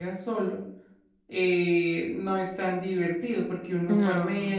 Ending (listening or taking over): listening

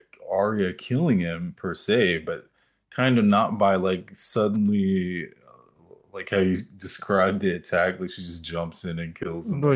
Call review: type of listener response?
taking over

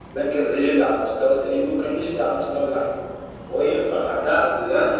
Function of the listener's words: taking over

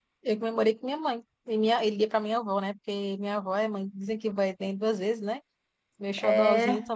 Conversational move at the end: listening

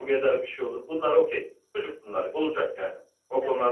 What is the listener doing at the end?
listening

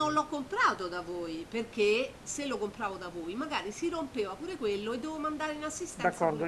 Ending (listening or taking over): taking over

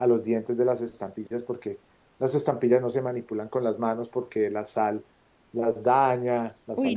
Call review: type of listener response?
taking over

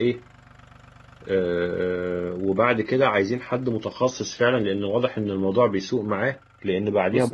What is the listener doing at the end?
listening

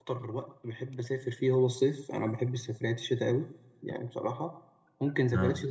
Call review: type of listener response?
listening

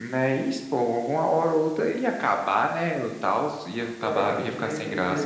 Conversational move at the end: taking over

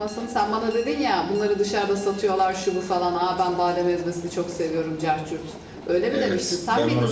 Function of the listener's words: taking over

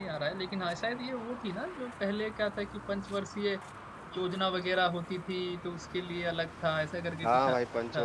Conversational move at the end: taking over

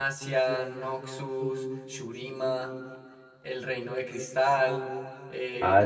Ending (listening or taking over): taking over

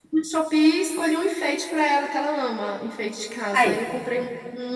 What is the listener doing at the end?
listening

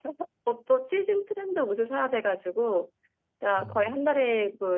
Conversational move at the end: listening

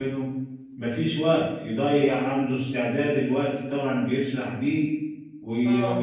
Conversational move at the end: listening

